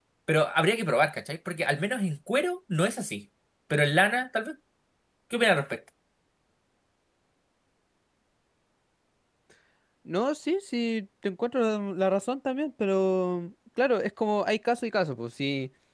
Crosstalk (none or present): none